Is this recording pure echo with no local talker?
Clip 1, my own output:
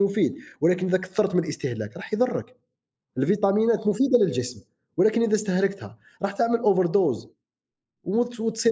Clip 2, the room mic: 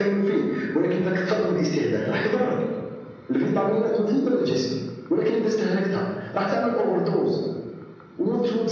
No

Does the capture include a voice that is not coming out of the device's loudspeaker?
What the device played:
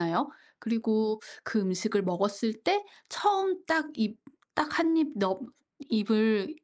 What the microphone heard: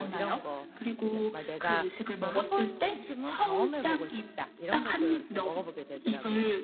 Yes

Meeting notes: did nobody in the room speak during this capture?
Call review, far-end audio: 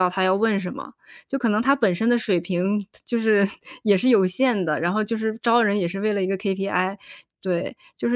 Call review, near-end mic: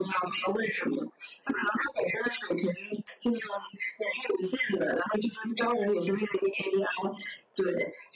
Yes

